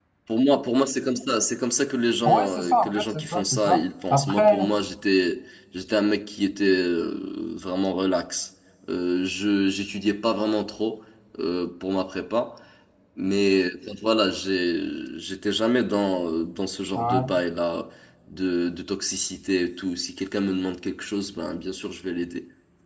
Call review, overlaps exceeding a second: present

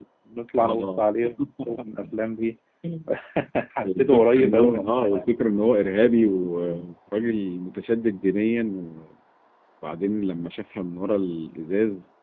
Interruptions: present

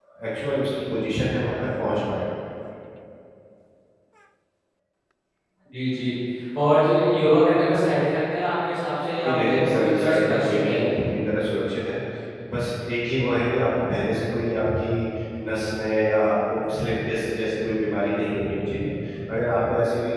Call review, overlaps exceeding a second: present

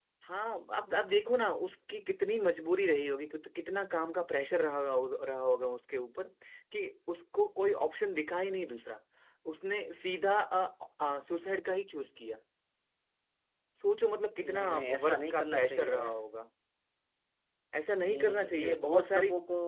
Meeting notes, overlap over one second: present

